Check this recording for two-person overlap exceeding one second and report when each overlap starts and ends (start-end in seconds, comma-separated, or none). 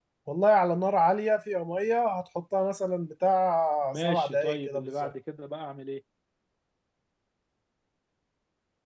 3.8-5.1